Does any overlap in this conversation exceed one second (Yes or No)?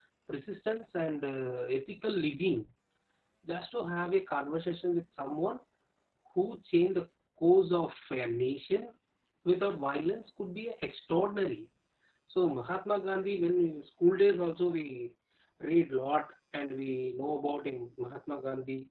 No